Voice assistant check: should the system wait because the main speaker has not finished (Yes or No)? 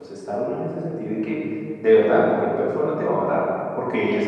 No